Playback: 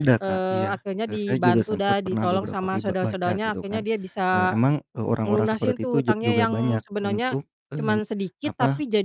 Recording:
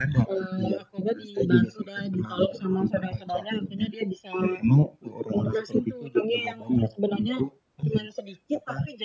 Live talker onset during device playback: none

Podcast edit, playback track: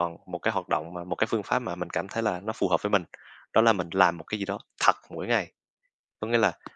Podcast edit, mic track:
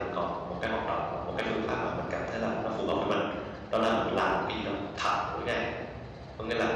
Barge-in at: none

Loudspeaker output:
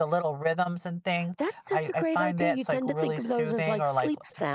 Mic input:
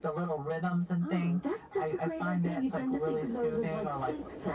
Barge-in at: 1.0 s

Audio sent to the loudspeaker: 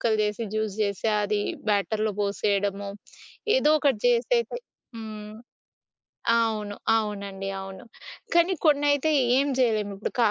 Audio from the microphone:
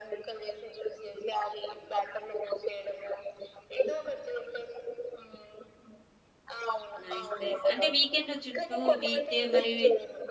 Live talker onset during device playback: 7.0 s

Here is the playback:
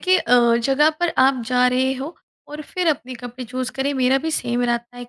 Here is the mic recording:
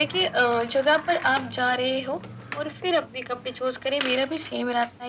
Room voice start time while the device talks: none

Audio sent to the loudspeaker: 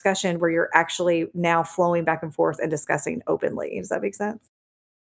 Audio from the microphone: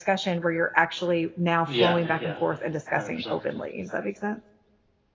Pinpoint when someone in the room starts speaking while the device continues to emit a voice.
1.6 s

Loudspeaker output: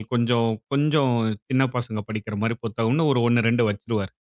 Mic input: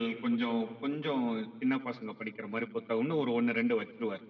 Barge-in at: none

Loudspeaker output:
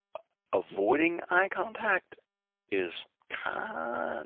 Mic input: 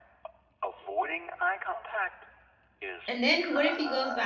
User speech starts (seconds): 3.1 s

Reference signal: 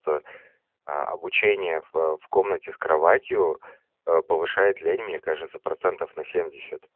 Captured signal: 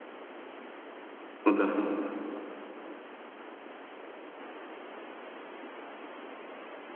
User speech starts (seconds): 1.4 s

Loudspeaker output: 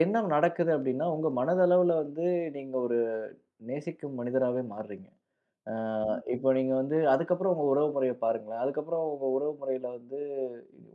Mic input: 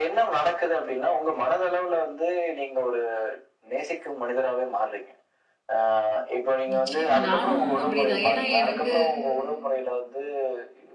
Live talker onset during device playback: 6.7 s

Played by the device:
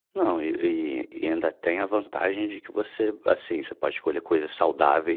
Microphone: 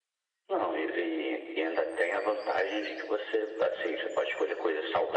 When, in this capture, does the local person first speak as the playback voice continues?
none

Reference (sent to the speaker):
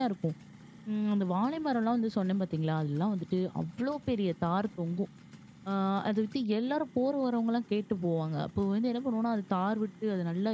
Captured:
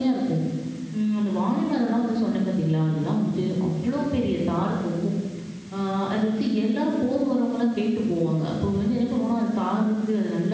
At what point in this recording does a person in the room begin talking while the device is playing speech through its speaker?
none

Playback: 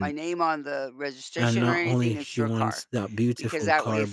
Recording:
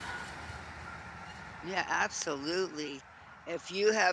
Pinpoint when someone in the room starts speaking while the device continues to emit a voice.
1.6 s

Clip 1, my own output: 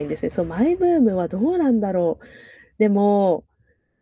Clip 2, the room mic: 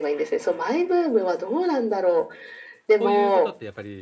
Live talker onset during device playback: 3.0 s

